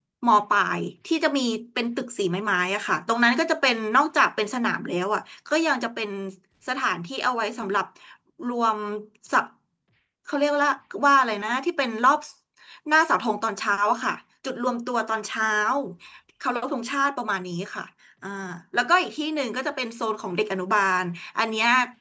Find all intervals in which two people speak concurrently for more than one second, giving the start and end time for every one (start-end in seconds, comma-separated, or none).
none